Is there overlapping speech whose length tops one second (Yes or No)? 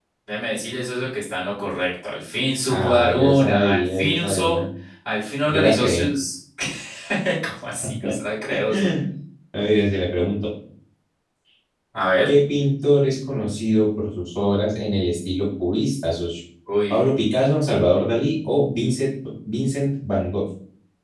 Yes